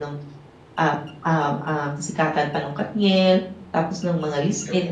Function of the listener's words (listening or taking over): listening